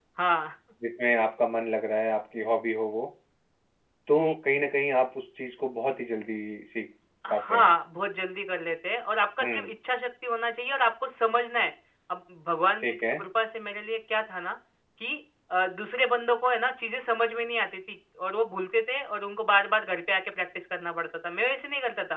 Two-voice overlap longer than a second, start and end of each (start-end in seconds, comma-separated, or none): none